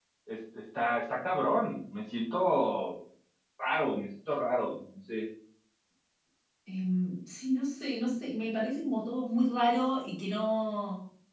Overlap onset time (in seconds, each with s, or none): none